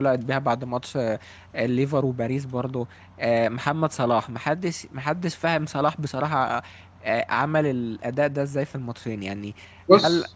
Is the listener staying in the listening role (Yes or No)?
Yes